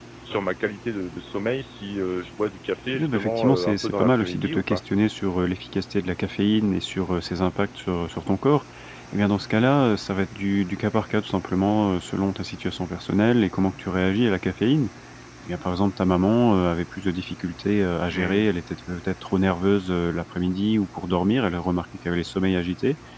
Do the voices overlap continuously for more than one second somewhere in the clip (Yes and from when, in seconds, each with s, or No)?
Yes, from 3.0 s